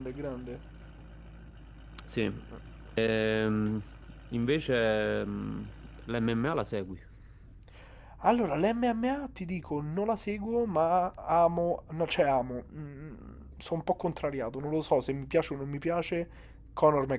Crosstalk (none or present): none